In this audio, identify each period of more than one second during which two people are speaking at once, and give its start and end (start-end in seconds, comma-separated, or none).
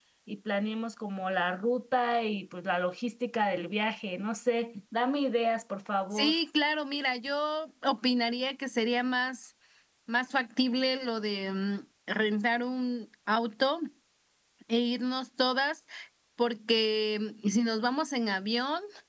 none